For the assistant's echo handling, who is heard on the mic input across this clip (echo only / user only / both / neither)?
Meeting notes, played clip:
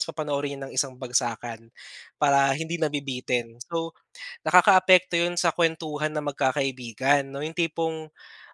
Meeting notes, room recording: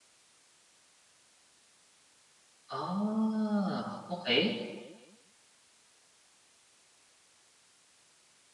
user only